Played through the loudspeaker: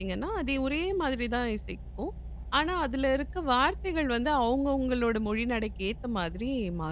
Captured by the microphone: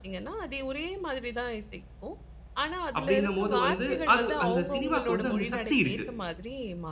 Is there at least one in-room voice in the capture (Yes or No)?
Yes